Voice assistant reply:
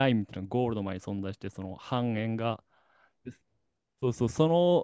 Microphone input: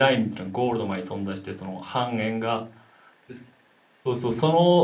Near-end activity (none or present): none